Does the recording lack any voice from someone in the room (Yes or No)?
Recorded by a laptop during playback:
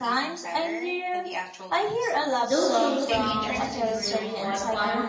No